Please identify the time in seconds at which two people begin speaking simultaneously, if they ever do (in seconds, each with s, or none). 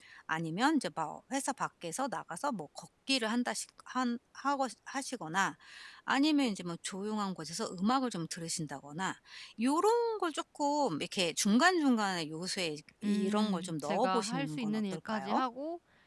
13.0 s